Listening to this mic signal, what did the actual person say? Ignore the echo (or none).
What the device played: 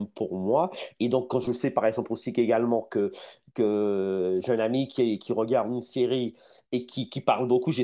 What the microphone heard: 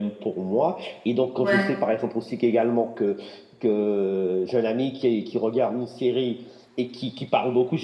Ouais,